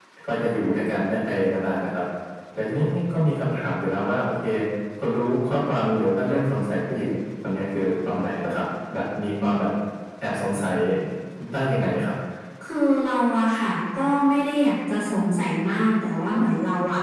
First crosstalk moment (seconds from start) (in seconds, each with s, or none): none